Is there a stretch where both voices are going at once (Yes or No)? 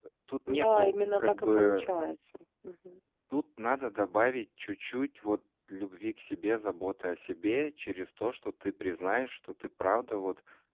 Yes